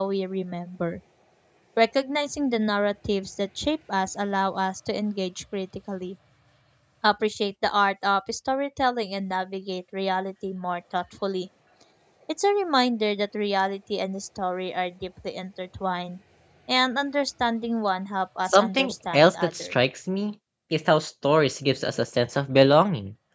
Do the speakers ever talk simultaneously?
Yes, from 18.5 s

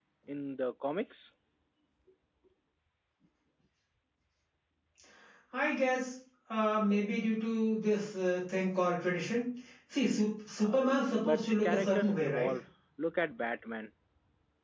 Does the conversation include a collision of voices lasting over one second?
Yes, from 10.6 s

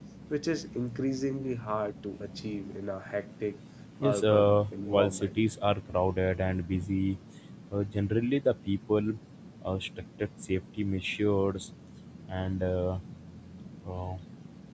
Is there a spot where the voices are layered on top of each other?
Yes, from 4.0 s

